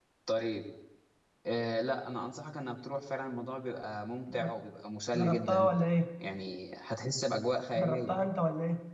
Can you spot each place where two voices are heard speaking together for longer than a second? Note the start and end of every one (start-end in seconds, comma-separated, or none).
none